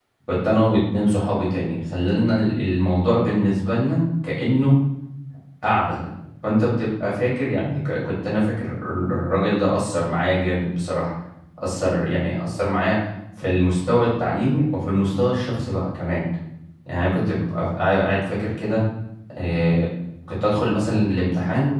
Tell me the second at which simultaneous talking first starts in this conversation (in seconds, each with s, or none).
none